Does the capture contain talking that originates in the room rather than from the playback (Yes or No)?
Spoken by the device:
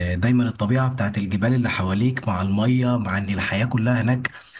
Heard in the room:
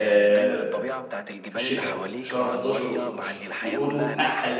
Yes